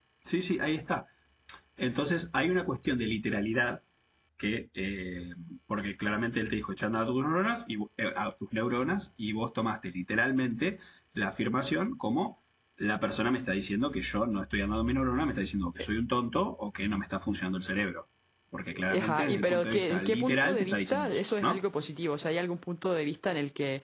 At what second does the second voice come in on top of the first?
19 s

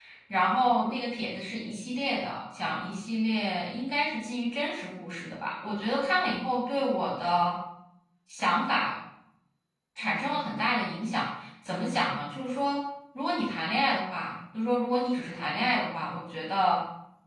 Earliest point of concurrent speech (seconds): none

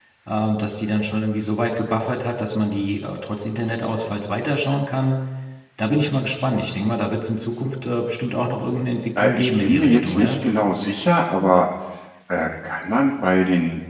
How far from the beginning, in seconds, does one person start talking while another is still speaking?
9 s

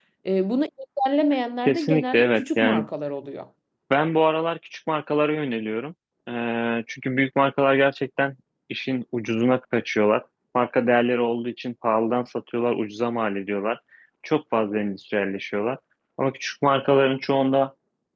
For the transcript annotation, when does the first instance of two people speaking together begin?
2 s

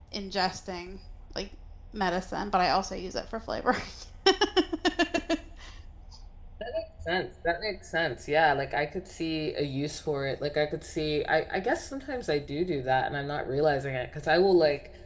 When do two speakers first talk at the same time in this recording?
none

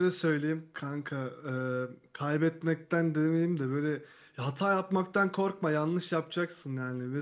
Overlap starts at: none

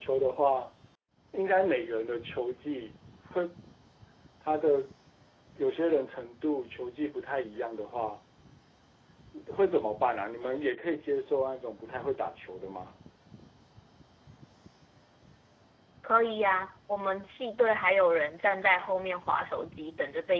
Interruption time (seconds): none

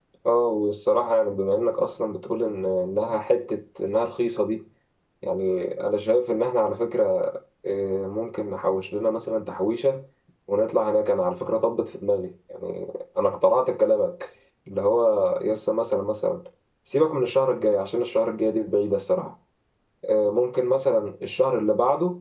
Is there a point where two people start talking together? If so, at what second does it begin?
none

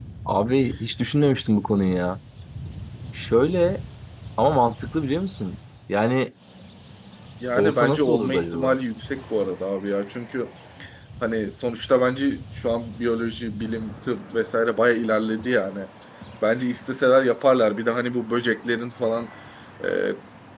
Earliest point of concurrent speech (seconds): 8 s

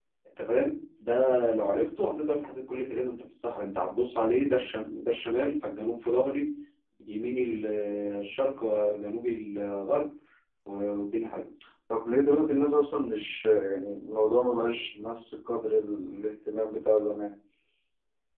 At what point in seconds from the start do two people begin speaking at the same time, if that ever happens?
none

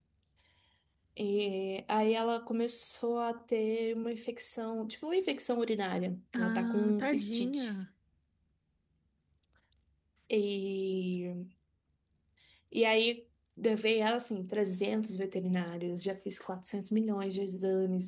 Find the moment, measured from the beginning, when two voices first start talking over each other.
6 s

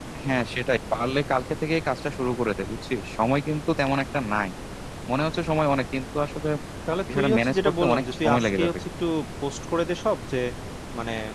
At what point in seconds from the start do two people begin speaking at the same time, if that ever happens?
7 s

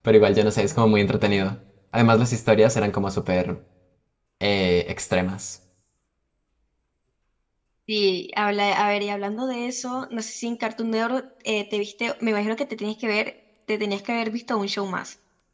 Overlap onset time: none

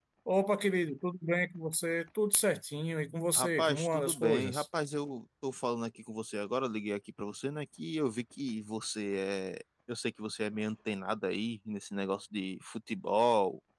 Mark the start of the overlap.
3 s

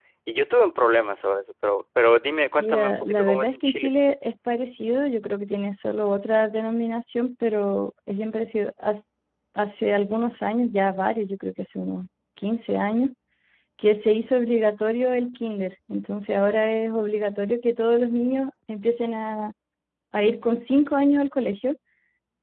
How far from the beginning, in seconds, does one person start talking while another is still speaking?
3 s

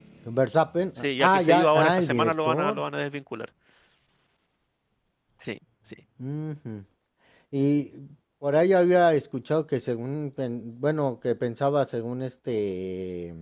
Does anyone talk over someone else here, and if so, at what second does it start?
1 s

